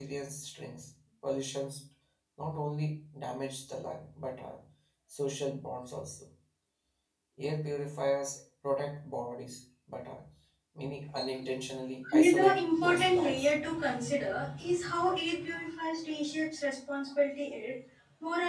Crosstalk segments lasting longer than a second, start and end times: 12.1-13.5

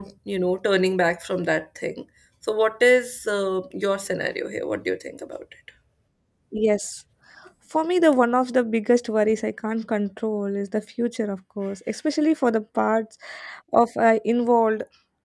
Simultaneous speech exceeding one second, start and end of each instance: none

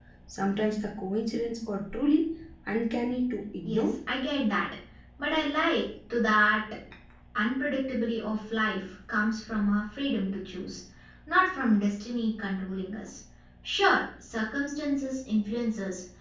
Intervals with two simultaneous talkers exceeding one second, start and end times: none

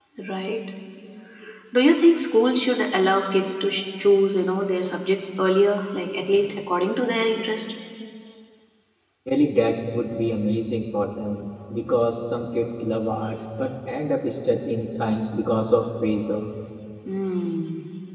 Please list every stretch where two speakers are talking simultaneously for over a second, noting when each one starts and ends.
none

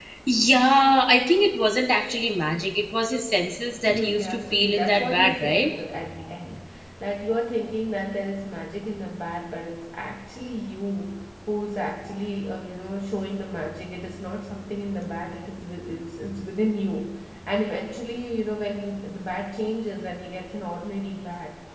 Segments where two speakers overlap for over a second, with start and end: 3.9-5.7

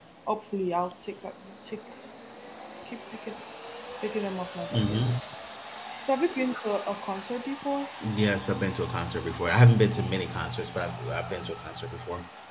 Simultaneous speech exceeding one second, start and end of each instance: none

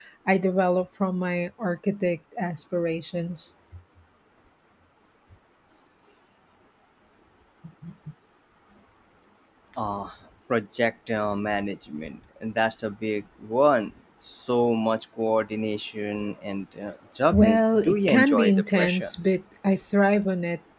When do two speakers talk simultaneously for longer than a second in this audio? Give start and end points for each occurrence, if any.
17.3-19.1

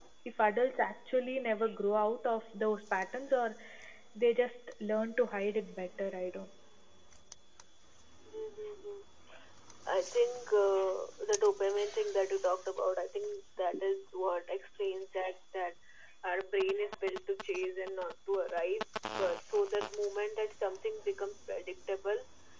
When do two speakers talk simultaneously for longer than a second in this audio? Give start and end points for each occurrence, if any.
none

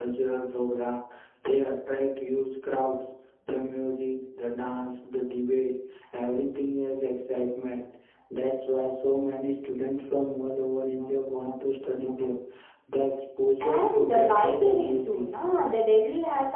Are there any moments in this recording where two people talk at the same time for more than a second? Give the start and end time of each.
13.6-15.4

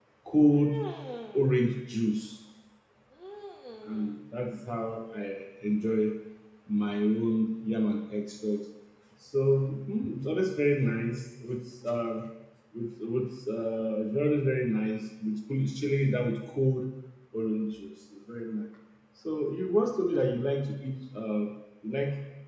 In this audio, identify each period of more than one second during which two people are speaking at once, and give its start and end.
none

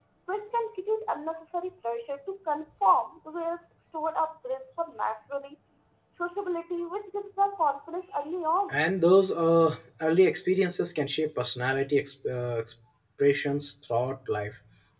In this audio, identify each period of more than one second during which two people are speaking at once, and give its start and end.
none

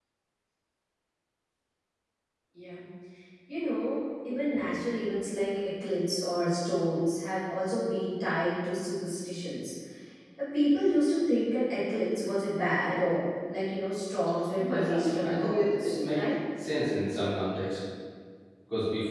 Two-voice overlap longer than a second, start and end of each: 14.6-16.2

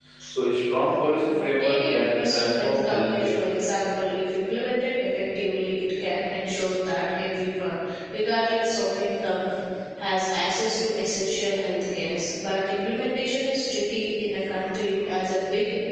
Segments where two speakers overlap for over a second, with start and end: 1.2-3.3

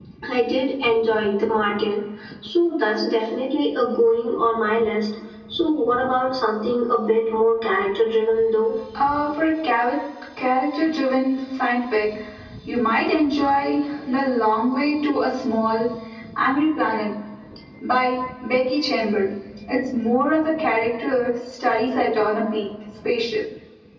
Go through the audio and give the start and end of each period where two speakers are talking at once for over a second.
none

